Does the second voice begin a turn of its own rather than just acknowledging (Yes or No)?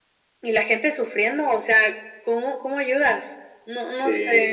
Yes